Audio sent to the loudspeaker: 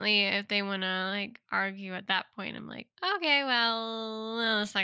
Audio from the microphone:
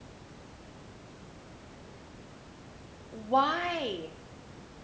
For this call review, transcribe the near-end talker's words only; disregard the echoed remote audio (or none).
Why?